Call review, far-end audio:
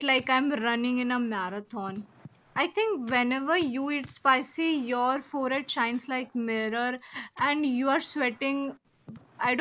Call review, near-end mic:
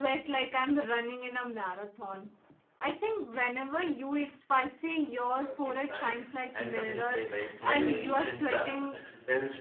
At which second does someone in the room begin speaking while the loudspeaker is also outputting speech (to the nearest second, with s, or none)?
5 s